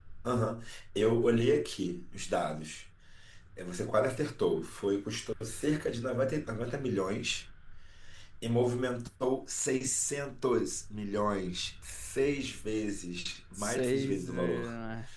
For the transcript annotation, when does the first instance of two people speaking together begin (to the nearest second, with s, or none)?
14 s